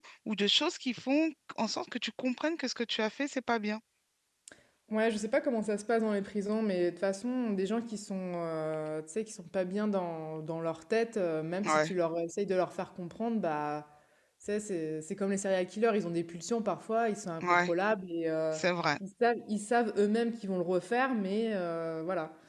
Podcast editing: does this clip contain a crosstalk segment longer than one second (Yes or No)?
No